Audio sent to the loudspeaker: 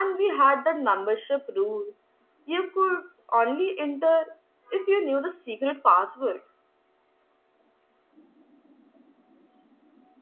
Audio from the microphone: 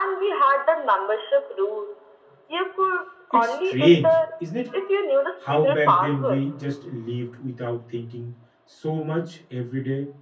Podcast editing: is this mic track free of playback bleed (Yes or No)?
No